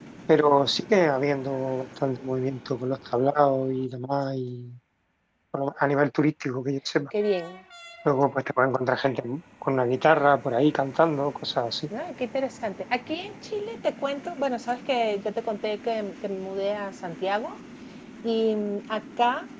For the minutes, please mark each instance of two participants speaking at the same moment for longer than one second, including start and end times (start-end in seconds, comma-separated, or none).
none